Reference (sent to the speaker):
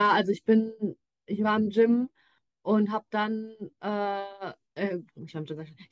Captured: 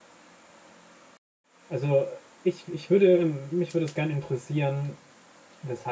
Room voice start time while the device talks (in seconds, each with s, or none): 1.7 s